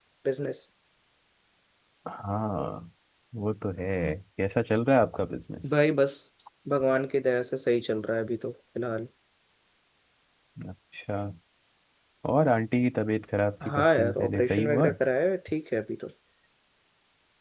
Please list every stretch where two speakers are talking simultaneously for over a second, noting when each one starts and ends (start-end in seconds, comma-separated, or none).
13.6-14.9